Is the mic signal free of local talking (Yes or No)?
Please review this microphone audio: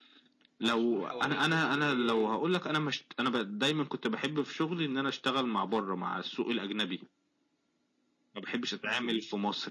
No